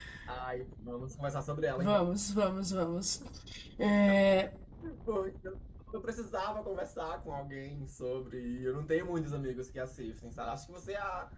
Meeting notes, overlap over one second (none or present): none